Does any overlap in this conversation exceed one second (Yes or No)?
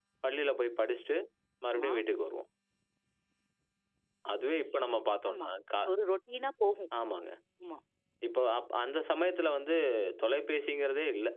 No